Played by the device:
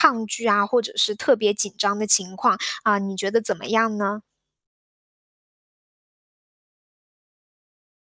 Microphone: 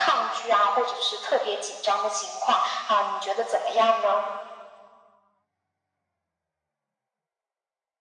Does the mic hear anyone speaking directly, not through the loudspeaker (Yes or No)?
No